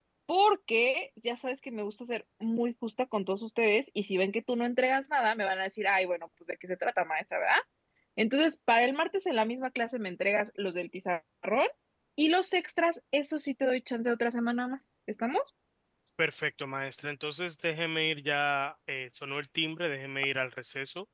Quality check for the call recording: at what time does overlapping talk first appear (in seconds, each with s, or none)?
none